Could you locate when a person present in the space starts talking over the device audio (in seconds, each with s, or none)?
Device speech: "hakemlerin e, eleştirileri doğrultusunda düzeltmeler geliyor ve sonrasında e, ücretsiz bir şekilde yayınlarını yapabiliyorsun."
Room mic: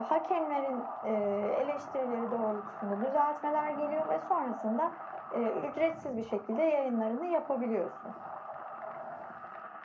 none